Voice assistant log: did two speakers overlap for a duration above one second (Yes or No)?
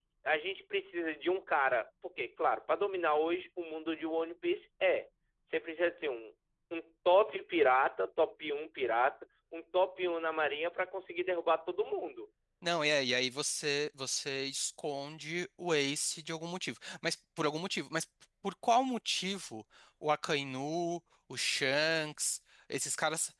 No